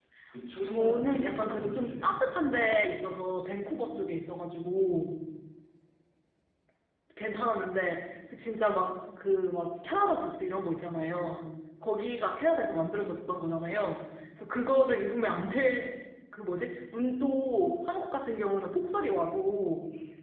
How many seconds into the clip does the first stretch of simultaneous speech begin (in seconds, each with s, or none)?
0.6 s